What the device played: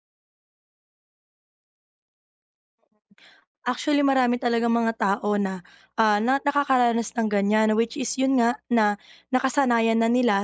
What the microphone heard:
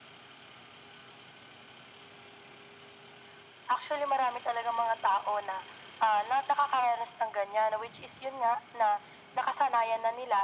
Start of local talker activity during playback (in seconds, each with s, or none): none